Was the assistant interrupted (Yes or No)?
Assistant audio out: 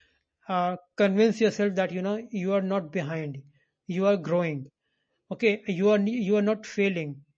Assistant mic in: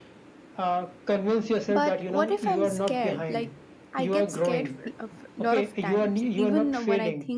Yes